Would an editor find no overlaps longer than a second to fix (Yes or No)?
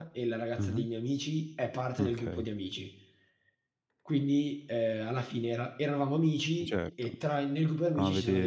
Yes